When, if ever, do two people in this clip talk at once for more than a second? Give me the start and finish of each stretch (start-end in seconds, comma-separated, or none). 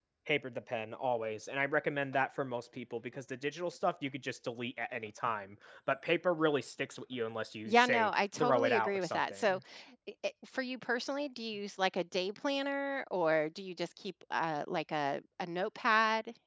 7.7-9.6